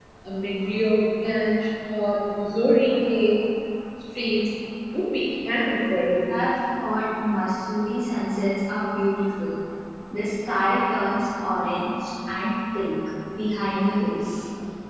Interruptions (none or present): none